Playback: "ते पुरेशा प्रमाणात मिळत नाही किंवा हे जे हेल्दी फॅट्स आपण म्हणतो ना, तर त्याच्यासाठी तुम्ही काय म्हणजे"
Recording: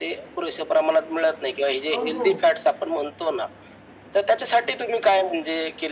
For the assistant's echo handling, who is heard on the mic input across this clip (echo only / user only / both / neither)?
both